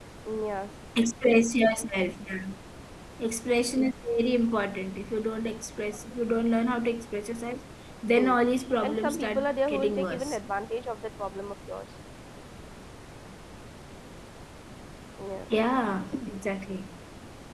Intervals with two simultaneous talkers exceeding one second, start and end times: 8.8-10.4

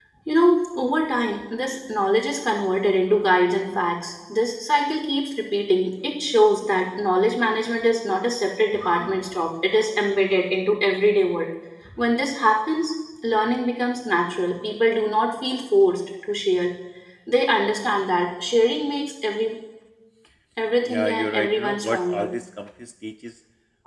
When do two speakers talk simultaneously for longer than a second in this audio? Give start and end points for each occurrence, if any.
20.9-22.3

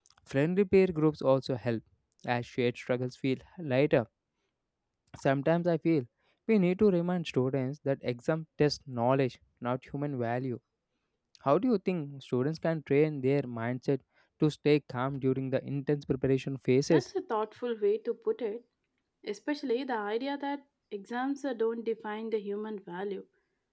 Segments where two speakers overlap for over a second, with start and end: none

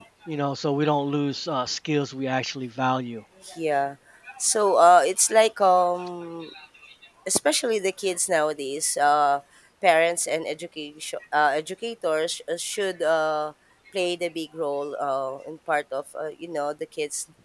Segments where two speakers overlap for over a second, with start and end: none

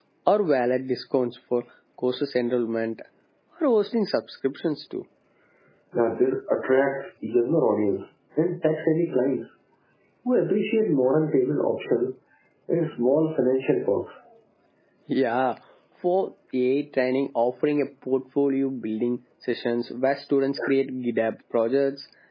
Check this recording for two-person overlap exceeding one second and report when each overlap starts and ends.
none

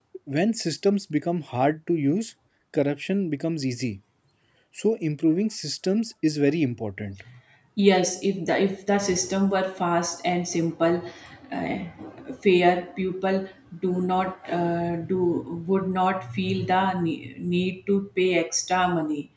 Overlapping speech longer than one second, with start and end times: none

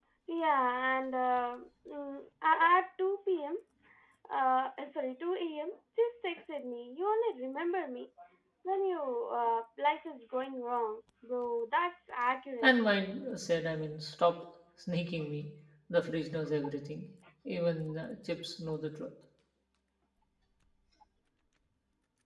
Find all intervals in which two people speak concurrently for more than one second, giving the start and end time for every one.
none

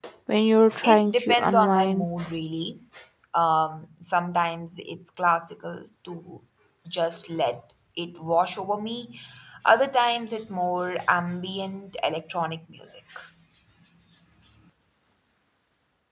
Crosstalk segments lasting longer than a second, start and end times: 0.8-2.1

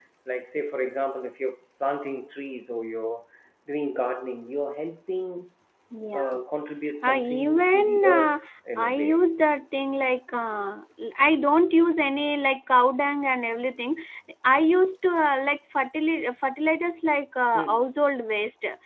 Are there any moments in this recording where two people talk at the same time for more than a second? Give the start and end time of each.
7.0-8.4

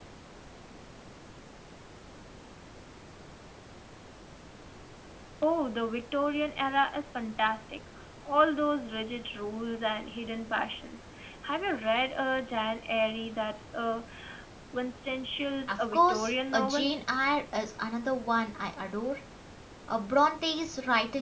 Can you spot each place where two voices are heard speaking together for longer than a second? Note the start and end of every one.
15.7-16.9

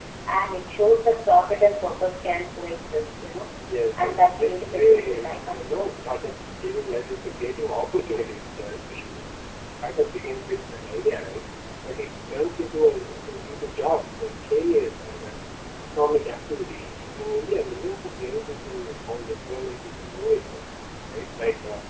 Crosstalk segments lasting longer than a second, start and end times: 4.0-5.9

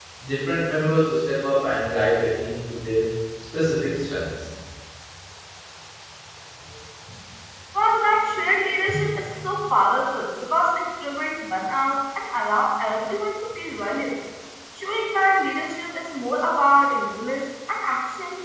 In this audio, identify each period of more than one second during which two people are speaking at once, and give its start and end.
none

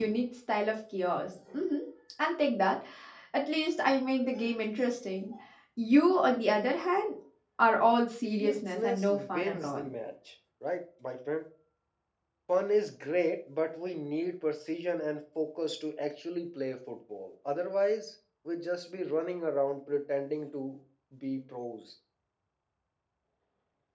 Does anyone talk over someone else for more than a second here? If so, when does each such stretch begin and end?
8.2-9.8

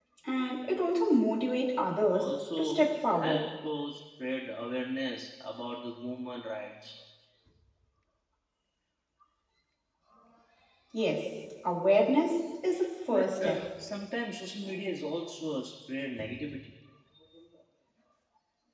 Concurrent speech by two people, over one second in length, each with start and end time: 2.1-3.5

